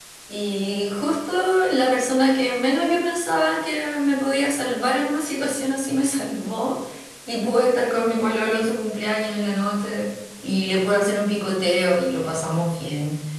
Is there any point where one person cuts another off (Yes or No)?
No